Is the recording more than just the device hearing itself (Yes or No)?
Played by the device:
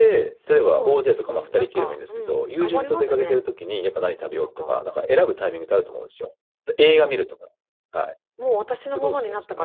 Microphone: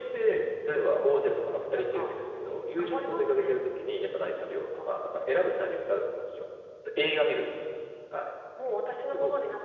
No